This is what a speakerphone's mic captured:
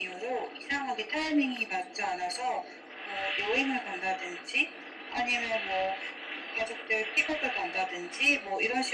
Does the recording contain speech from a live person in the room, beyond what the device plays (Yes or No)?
No